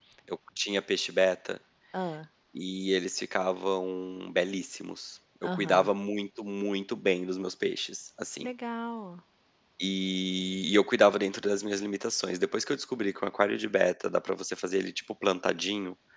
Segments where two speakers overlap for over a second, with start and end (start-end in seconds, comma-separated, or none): none